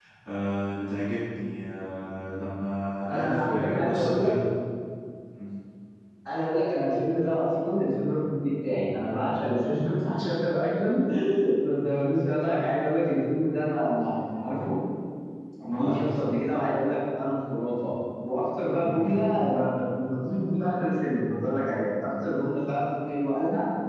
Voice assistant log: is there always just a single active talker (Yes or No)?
No